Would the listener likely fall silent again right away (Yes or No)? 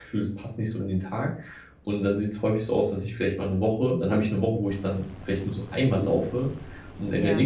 Yes